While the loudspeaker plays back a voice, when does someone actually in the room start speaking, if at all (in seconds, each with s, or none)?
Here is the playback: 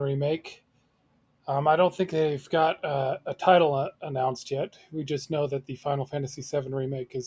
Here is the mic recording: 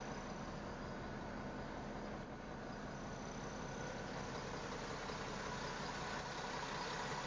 none